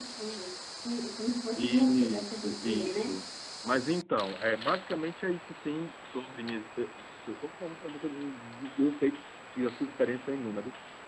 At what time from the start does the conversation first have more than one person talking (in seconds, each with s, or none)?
1.6 s